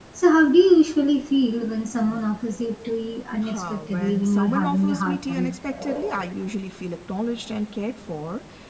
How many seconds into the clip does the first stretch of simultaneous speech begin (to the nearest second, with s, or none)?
3 s